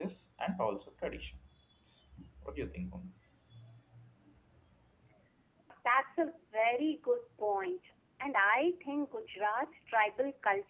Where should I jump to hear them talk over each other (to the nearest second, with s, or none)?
none